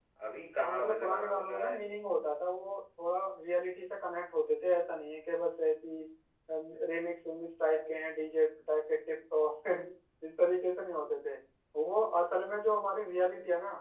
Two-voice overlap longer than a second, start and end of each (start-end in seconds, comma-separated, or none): 0.6-1.8